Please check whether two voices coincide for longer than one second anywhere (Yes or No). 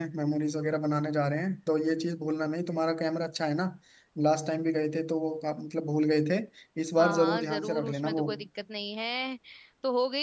Yes